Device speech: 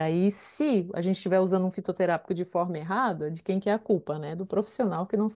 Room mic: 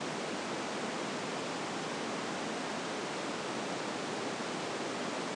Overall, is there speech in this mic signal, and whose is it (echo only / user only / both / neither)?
neither